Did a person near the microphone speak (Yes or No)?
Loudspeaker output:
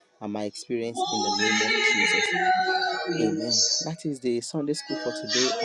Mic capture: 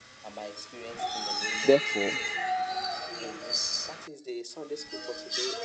Yes